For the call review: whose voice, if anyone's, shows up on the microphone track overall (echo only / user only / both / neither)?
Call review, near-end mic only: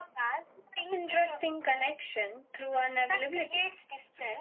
echo only